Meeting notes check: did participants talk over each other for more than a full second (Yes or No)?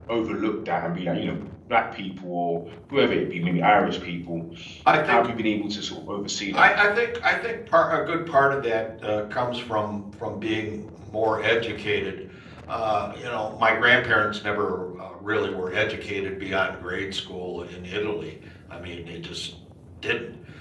No